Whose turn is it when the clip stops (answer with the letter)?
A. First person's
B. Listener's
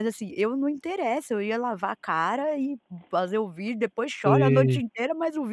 A